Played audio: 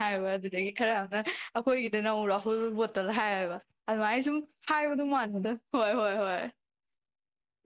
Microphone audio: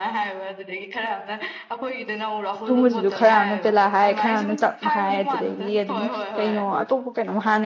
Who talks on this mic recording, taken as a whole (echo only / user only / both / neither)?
both